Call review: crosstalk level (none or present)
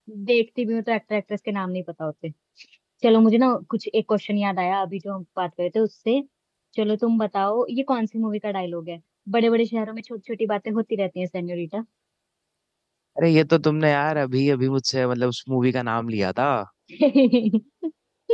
none